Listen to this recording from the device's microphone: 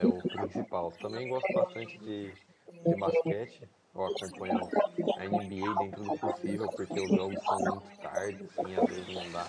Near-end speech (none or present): present